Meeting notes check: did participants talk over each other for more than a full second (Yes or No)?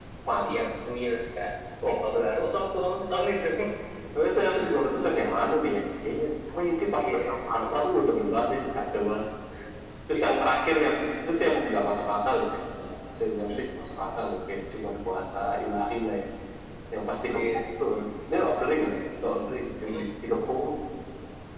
No